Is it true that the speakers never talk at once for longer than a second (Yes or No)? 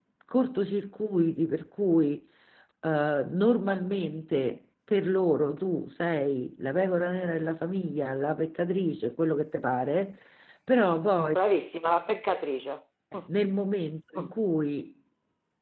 Yes